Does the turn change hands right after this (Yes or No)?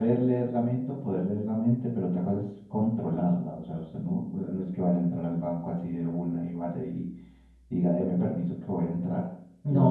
Yes